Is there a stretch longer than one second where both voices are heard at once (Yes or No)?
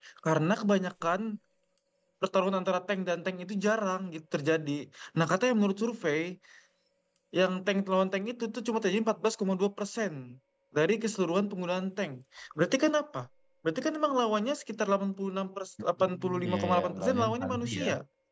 Yes